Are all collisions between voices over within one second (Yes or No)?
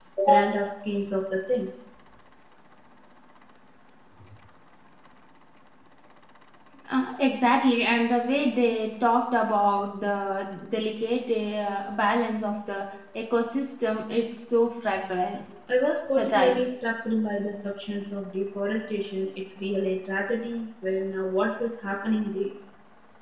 Yes